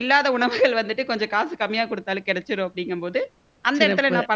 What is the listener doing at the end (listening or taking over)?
listening